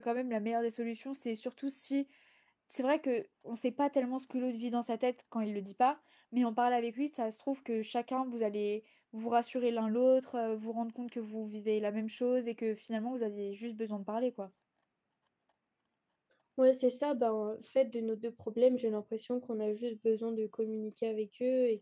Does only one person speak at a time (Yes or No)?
Yes